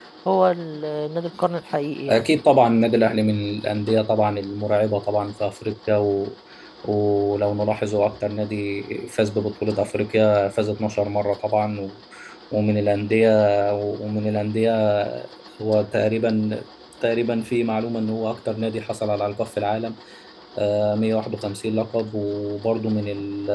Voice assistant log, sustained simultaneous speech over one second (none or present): none